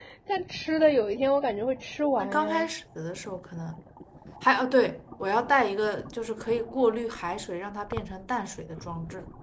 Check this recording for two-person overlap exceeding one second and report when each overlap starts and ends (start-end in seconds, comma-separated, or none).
none